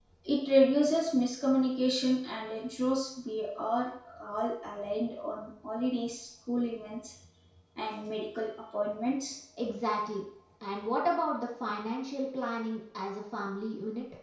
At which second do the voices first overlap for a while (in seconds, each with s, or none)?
none